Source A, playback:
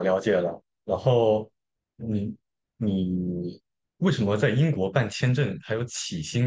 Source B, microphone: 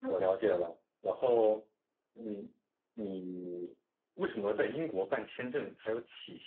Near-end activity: none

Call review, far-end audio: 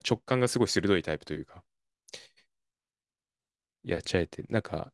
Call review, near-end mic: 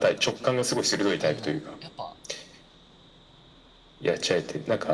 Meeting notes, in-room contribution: present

